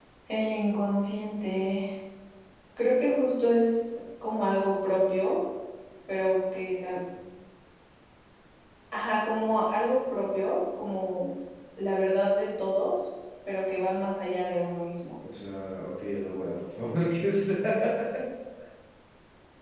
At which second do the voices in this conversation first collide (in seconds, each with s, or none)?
none